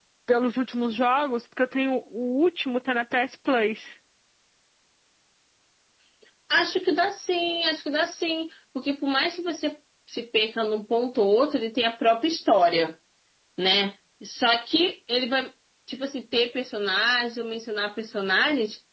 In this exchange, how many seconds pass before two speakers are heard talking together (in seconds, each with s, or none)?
none